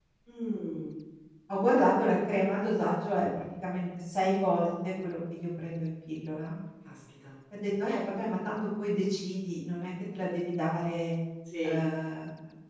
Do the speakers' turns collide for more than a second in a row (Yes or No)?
No